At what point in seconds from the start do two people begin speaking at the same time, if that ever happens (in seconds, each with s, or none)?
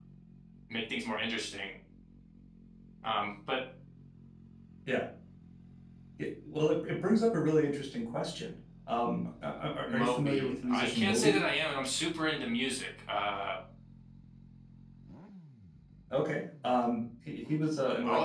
9.9 s